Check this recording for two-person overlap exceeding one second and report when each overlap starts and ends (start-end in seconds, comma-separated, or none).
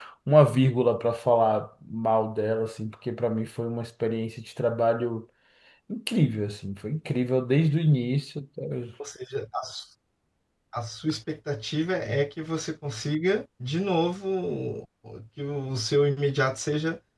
none